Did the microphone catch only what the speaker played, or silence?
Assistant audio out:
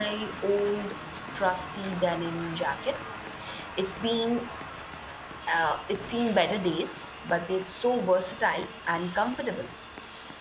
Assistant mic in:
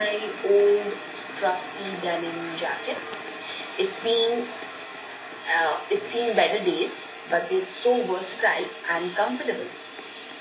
Yes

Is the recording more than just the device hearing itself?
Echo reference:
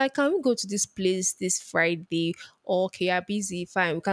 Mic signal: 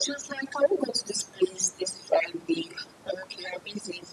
No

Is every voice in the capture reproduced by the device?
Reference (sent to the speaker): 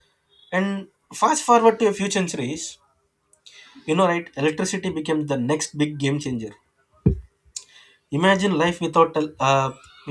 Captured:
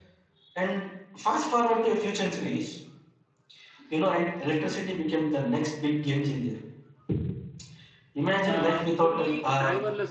No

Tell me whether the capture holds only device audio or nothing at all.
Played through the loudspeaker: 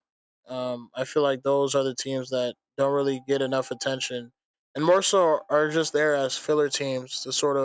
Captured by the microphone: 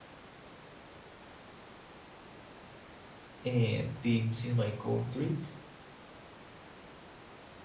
No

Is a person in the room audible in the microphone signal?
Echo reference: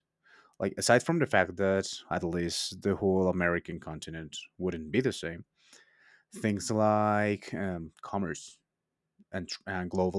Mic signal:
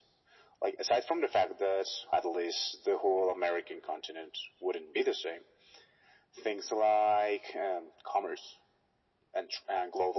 No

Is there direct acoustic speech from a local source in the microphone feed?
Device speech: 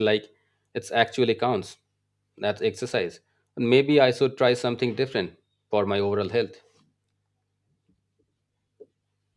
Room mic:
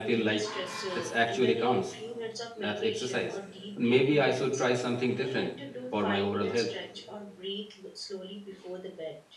Yes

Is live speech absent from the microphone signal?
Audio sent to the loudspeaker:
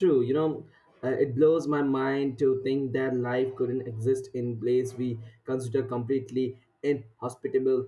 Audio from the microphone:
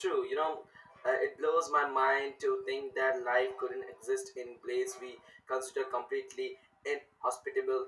Yes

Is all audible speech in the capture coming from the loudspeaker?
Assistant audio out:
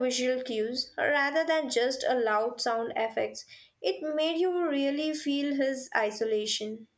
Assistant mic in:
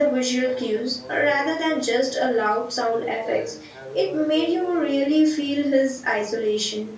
No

